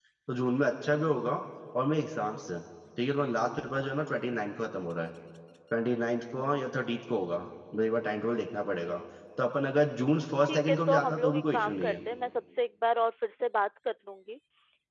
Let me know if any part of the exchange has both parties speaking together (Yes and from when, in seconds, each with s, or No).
Yes, from 10.4 s